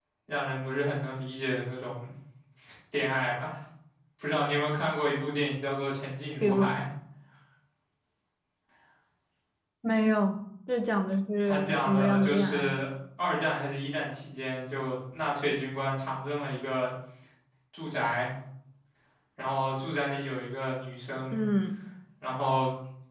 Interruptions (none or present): present